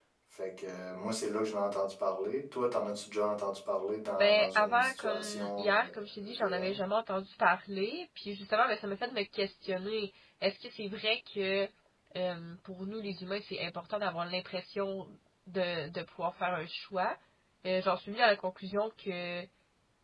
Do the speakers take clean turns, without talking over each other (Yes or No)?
No